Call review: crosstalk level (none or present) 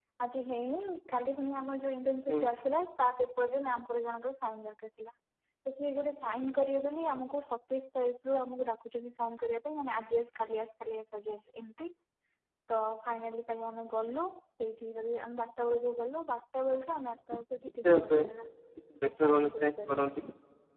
present